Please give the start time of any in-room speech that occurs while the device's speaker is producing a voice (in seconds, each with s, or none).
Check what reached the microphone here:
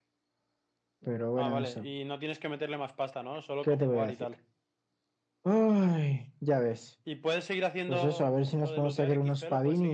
none